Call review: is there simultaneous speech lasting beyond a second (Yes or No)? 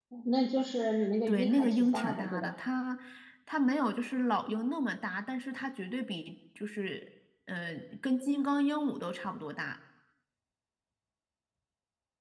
Yes